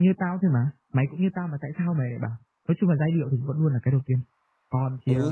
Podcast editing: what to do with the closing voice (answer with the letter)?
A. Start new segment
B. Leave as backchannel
A